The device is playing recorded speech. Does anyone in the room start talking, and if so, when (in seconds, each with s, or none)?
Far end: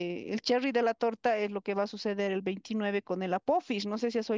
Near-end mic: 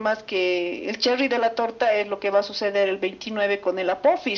none